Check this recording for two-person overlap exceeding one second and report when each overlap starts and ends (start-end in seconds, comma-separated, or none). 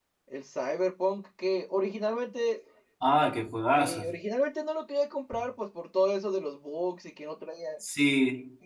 none